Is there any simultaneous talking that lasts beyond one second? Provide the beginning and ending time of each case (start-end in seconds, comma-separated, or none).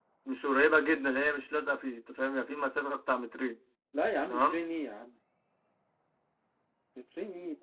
none